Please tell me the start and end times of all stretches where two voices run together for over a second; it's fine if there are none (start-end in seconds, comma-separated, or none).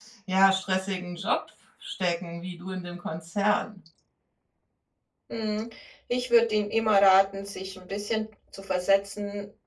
none